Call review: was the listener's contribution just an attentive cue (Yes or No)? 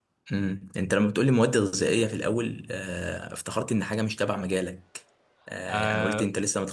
Yes